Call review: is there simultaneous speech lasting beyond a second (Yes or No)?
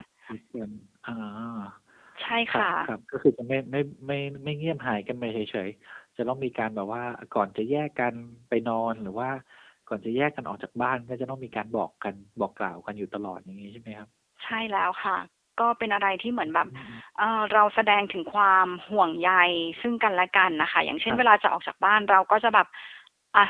No